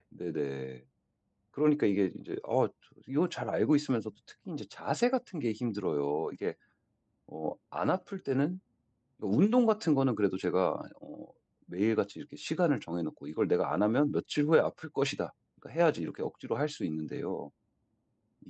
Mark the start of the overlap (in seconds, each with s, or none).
none